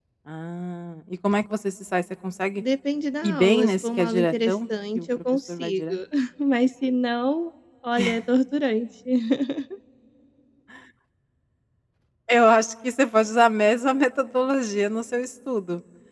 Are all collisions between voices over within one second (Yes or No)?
No